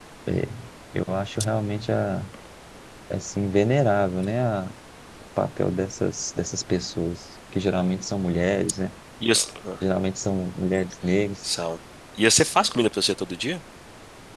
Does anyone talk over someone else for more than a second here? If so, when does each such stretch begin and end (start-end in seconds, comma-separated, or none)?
none